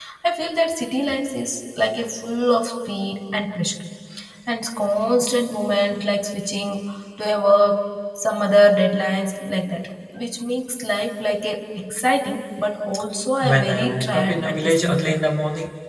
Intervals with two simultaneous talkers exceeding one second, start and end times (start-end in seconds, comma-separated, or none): 13.4-15.2